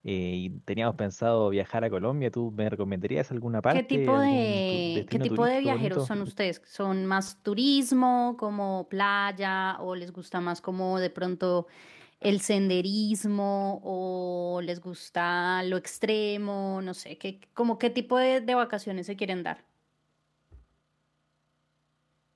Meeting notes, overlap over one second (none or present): present